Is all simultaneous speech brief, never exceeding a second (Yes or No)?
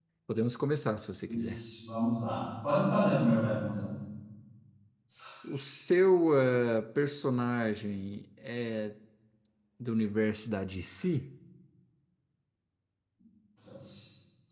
Yes